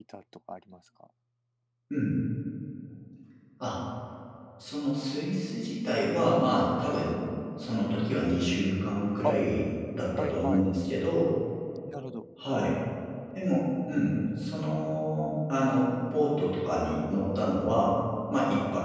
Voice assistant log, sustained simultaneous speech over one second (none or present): none